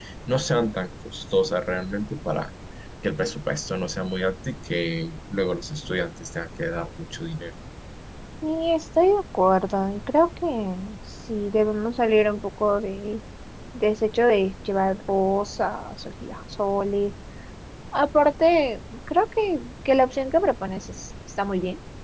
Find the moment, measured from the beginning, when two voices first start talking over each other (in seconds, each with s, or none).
none